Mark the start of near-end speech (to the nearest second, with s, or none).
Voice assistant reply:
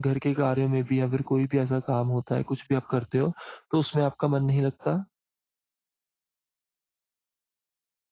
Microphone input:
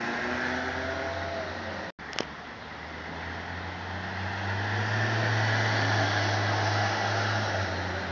none